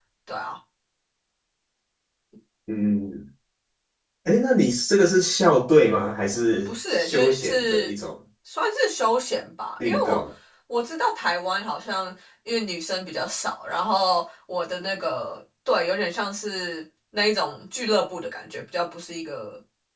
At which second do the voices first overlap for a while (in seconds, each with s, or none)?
6.7 s